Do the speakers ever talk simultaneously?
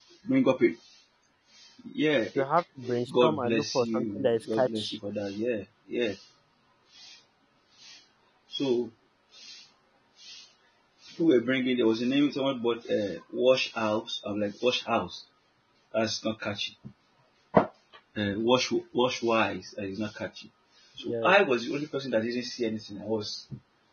Yes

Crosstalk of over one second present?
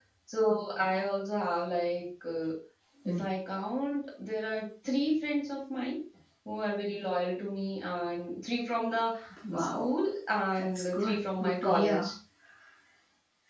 Yes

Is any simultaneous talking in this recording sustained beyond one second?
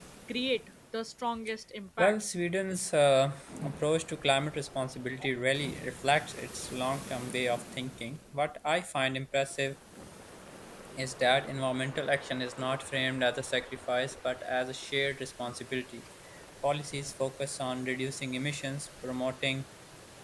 No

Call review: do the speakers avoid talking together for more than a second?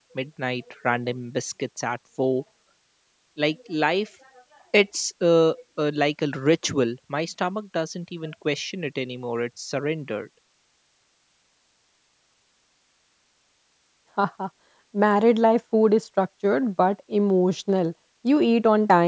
Yes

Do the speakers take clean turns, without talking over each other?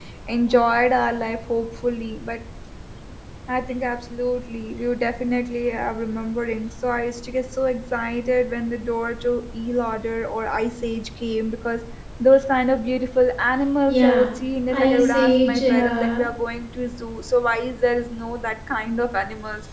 No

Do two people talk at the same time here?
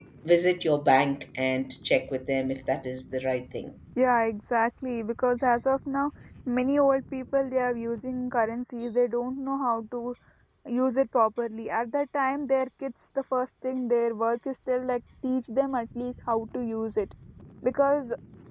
No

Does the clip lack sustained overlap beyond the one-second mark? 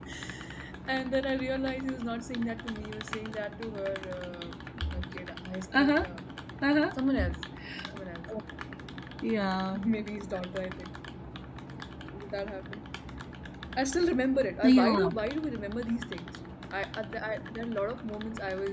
Yes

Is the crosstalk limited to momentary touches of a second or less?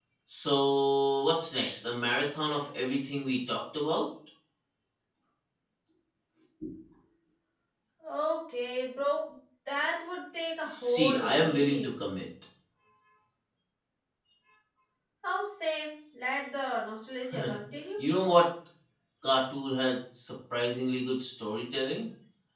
No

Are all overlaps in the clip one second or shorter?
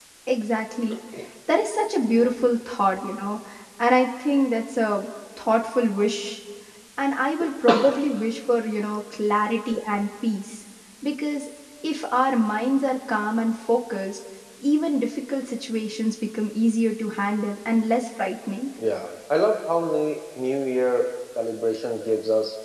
Yes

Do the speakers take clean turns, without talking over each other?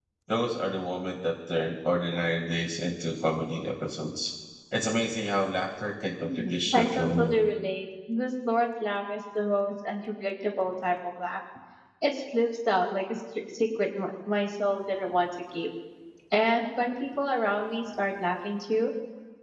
No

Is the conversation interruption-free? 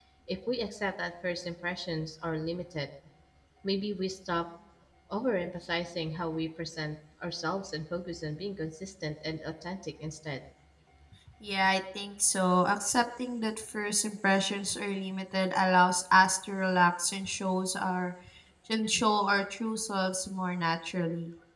Yes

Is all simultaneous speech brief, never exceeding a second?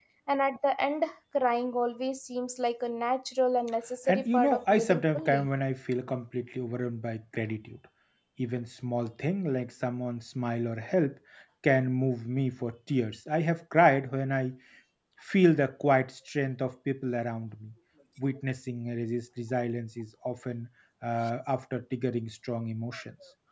No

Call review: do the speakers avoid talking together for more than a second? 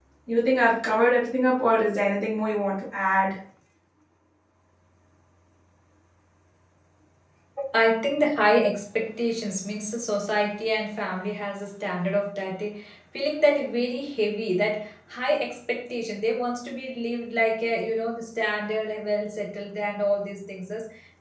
Yes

